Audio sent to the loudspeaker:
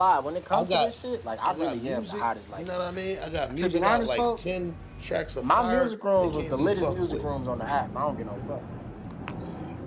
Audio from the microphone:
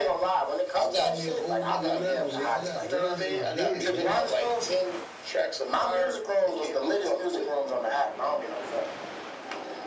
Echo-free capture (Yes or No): No